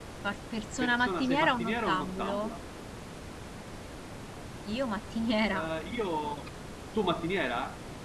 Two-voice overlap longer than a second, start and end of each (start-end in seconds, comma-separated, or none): 0.8-2.4